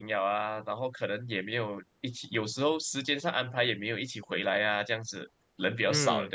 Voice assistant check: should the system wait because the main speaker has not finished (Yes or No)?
No